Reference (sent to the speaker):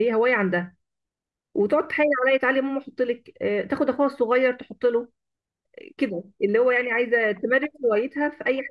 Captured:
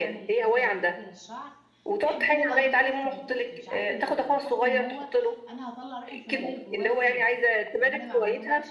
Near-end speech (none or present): present